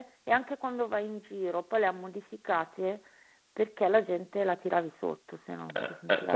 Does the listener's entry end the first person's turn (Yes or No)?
Yes